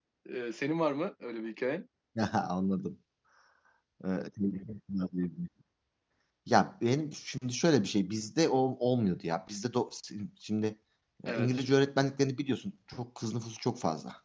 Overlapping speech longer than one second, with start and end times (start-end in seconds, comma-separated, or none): none